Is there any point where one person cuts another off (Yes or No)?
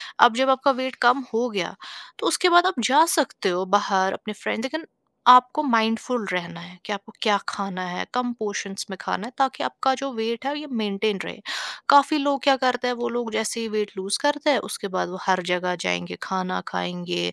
No